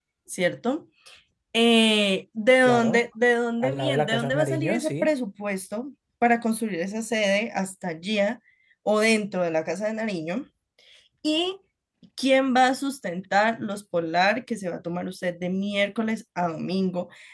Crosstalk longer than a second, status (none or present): present